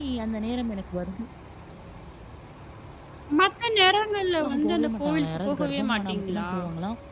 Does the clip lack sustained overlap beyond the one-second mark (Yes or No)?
No